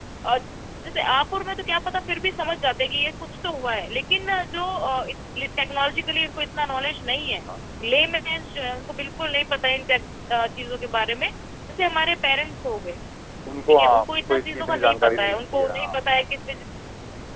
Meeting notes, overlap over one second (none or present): present